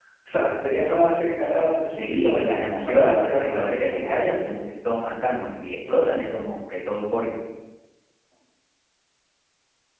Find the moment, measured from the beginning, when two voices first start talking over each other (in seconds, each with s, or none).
1.9 s